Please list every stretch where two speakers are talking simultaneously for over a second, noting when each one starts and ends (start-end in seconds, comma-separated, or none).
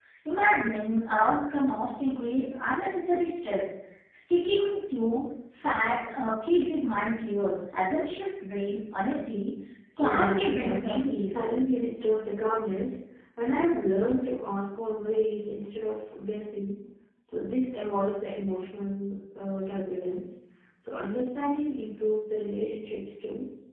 10.0-11.5